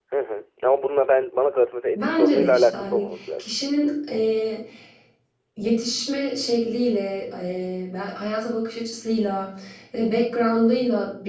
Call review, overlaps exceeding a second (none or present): present